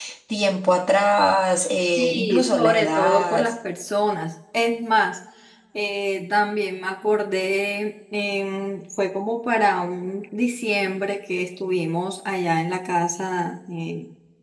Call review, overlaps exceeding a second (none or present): present